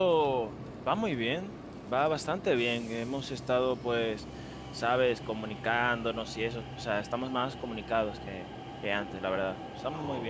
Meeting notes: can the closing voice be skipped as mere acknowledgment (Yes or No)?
No